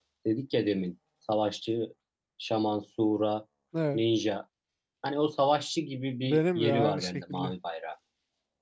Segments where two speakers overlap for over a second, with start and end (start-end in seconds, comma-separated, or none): 6.2-7.5